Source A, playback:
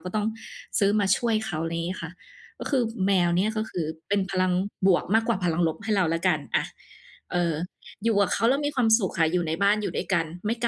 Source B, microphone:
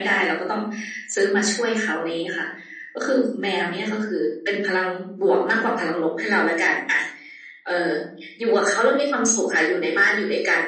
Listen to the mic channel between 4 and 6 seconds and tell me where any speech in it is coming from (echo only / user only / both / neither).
echo only